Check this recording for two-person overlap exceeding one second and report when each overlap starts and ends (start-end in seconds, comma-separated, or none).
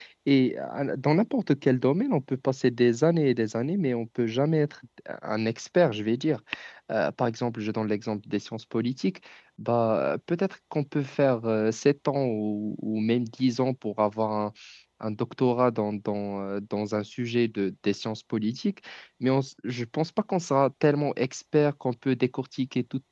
none